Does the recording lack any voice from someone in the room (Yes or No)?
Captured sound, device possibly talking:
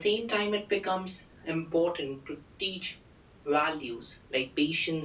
Yes